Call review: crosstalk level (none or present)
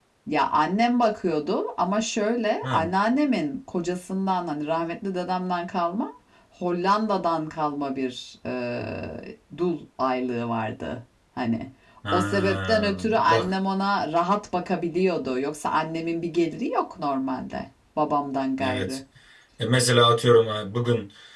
present